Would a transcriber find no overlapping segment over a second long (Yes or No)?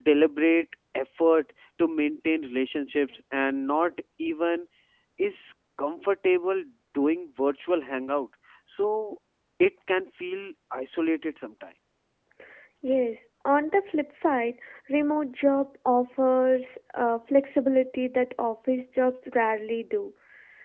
Yes